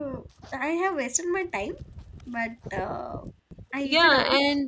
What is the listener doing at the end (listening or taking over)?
taking over